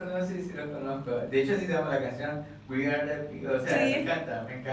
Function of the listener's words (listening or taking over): listening